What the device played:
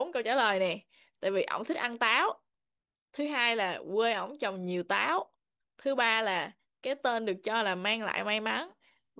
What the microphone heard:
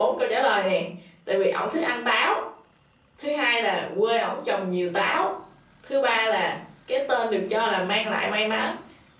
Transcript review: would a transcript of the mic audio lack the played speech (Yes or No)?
No